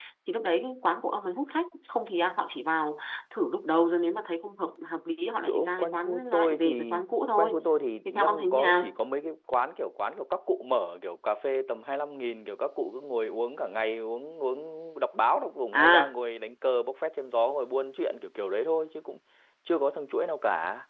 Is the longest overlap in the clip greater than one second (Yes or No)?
Yes